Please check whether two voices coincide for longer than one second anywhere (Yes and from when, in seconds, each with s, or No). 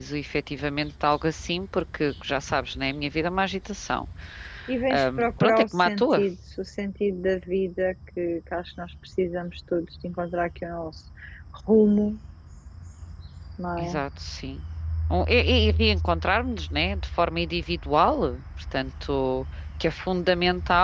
Yes, from 4.9 s